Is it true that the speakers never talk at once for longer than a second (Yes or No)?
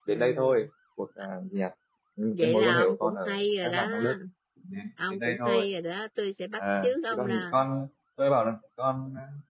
No